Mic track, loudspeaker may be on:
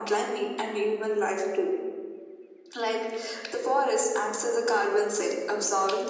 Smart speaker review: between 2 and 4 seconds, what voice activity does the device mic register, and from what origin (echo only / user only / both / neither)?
echo only